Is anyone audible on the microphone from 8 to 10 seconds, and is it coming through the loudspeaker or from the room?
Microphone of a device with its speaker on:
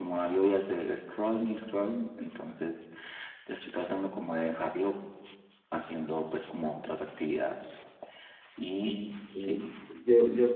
both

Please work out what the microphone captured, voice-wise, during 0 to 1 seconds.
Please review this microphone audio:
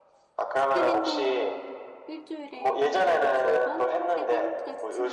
both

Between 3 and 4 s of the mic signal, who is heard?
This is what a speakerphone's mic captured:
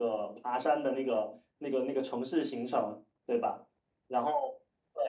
echo only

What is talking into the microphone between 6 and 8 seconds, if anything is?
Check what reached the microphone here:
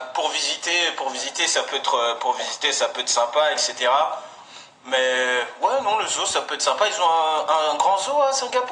echo only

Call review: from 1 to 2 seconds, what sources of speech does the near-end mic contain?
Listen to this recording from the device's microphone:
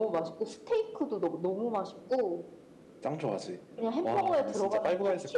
echo only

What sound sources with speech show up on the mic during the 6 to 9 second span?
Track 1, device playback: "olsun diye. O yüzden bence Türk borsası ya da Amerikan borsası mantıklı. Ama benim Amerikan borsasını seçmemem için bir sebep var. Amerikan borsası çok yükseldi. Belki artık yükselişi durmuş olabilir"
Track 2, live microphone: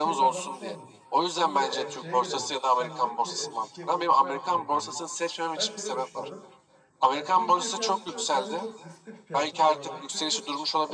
both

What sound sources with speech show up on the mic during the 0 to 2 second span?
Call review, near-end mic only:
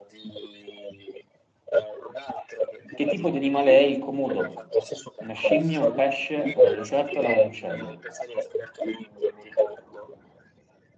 echo only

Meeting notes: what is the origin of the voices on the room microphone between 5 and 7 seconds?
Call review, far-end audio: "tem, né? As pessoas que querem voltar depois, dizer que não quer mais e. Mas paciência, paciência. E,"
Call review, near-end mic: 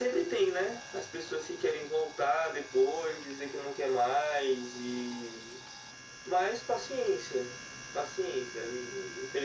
echo only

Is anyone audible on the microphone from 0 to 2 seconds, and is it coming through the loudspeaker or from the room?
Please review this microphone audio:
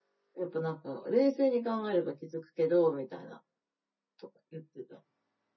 user only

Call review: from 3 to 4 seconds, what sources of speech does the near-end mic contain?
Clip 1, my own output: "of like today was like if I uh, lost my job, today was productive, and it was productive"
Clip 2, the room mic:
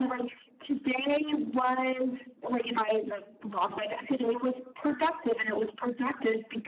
echo only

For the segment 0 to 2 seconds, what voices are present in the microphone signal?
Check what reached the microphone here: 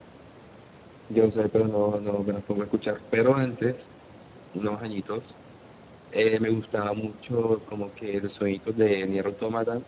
echo only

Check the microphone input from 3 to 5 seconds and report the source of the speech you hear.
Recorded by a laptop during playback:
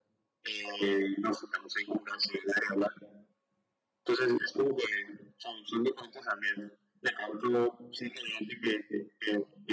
echo only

